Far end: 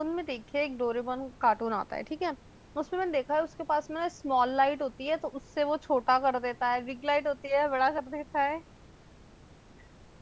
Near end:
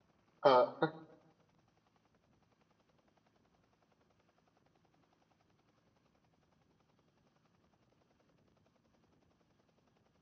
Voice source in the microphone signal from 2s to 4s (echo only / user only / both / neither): neither